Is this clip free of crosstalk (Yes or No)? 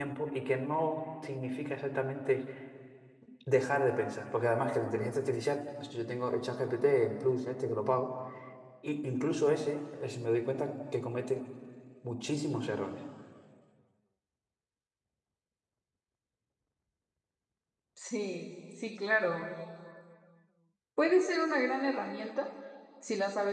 Yes